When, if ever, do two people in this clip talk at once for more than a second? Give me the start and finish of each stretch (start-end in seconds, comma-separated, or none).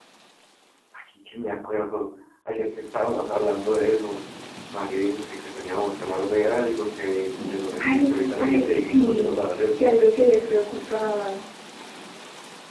7.8-9.9